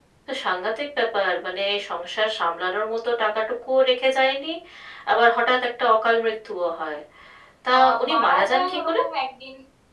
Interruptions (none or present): present